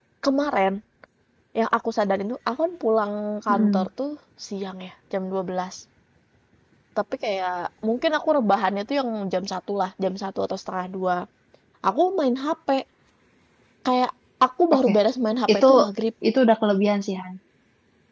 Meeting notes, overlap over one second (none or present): none